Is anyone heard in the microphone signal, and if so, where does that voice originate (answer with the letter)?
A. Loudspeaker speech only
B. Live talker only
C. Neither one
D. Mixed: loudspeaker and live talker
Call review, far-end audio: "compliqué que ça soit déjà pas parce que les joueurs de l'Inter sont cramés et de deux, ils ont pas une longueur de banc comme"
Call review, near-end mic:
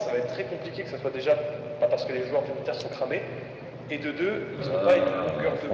D